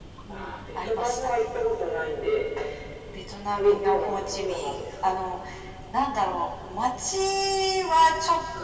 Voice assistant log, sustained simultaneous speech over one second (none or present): present